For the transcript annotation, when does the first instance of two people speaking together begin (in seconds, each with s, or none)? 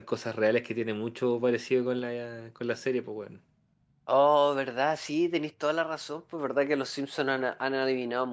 none